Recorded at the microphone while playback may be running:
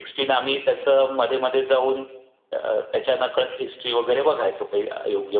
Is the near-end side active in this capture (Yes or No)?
No